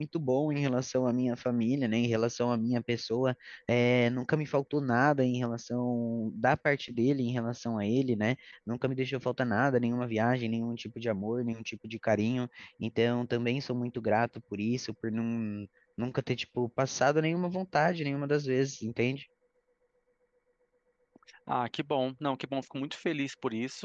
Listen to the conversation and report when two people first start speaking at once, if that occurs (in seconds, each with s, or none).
none